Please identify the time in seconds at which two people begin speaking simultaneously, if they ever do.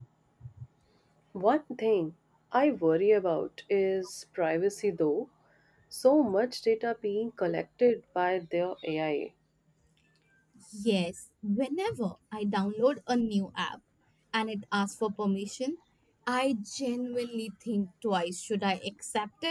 none

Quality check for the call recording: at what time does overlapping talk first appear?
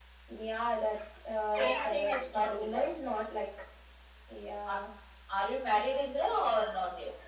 1.6 s

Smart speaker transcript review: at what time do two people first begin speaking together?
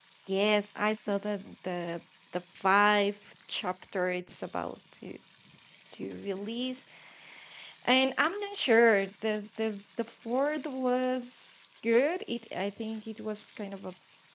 none

